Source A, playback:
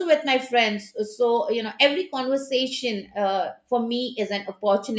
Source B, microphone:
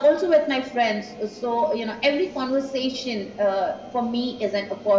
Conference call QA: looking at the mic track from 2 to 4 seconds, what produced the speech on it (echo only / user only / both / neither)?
echo only